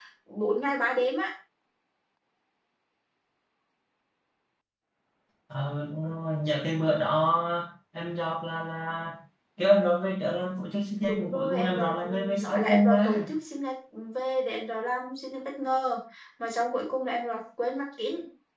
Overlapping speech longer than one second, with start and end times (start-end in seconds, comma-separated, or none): 11.1-13.3